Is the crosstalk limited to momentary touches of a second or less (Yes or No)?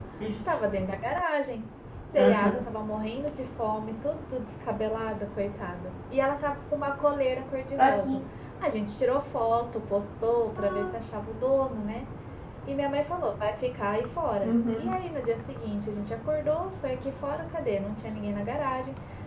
Yes